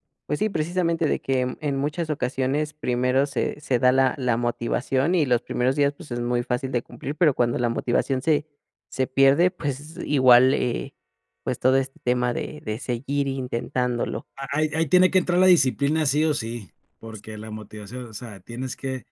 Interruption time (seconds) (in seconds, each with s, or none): none